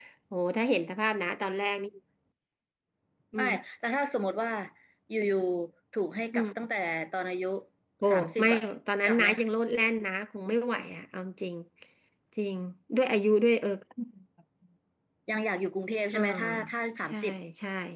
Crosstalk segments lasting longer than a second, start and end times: none

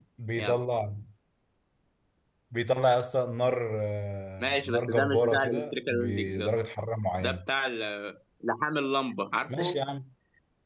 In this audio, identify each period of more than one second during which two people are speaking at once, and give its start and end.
4.4-6.5

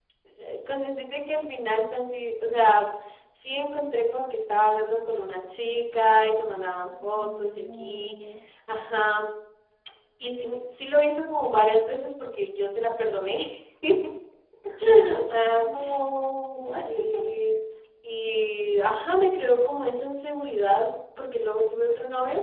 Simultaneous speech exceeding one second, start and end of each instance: 6.9-8.1

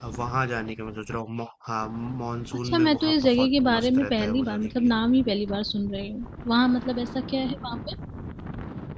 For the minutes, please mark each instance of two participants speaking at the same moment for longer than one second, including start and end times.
2.6-4.9

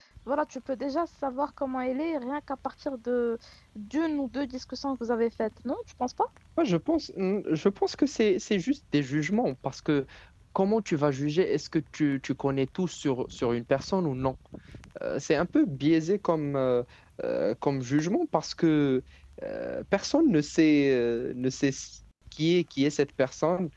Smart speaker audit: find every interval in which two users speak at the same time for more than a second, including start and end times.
none

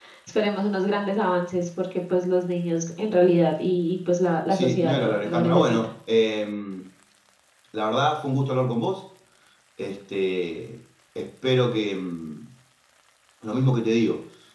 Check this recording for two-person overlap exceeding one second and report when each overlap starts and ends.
4.5-5.8

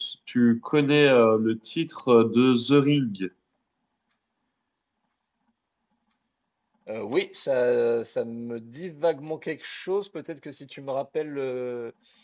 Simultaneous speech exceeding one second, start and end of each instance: none

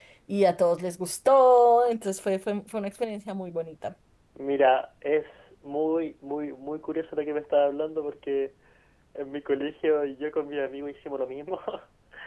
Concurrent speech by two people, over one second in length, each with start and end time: none

